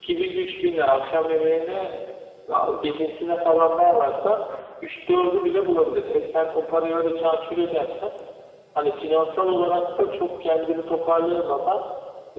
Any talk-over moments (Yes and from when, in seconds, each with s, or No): No